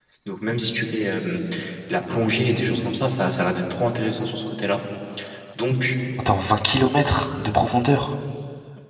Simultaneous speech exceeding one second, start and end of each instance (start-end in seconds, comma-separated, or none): none